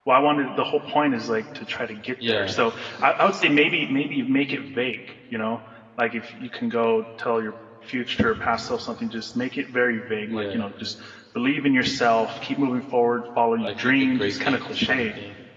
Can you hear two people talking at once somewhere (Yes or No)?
Yes